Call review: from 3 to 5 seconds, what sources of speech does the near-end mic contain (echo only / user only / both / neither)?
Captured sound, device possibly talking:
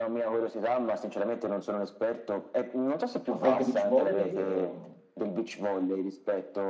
both